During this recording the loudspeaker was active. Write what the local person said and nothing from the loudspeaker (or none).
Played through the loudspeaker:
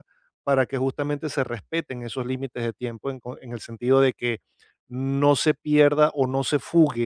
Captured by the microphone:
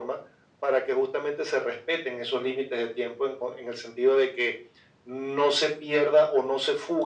none